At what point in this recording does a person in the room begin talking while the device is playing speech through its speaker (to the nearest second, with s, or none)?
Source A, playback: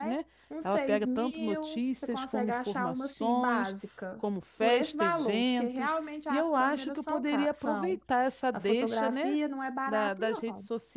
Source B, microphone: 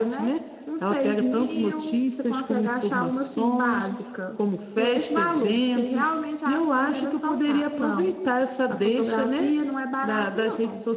none